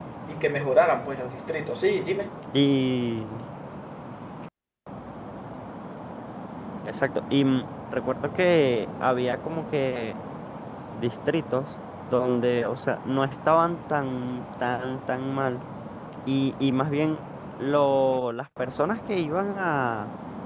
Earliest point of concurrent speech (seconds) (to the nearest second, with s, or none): none